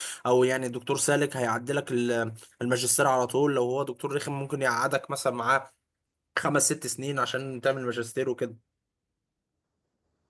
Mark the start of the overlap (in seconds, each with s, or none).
none